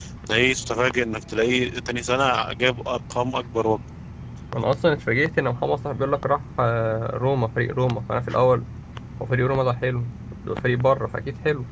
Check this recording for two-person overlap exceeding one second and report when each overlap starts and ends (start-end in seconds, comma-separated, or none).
none